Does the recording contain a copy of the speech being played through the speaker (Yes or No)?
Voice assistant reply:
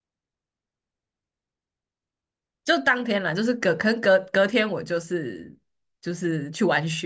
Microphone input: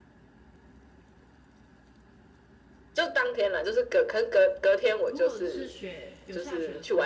Yes